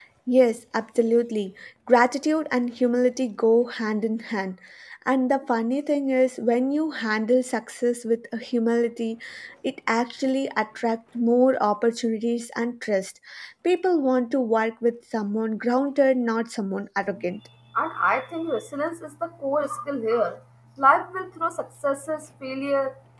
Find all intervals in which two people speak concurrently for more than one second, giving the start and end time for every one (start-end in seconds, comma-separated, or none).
none